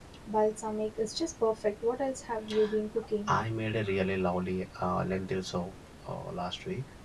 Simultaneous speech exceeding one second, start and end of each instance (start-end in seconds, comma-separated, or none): none